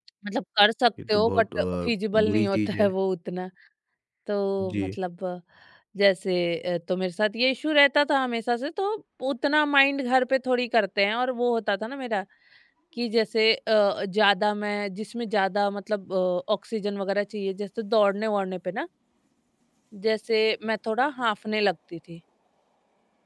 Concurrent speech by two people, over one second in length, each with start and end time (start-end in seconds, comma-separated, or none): 1.1-2.9